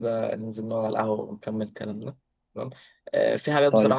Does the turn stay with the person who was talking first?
Yes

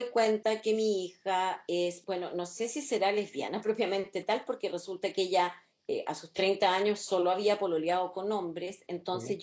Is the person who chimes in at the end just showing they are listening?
Yes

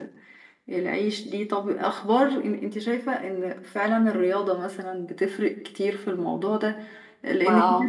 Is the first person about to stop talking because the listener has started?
No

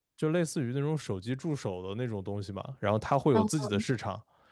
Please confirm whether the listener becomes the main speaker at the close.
No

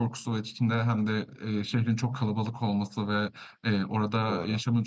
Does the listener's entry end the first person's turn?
No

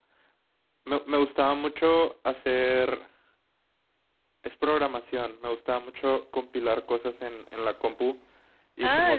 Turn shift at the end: Yes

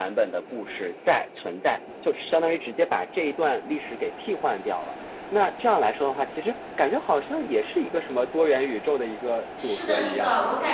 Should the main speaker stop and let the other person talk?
Yes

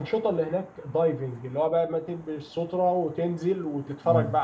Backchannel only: Yes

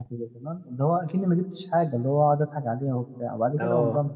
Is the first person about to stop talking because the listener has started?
No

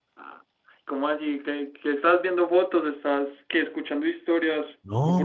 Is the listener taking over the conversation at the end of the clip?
Yes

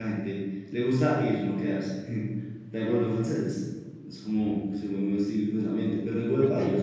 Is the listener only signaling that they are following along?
No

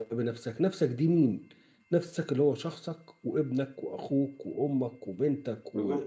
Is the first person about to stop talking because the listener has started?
Yes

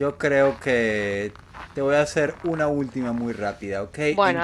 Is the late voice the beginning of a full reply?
No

